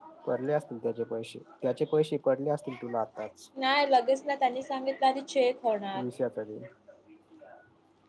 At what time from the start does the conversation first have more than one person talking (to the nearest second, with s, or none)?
none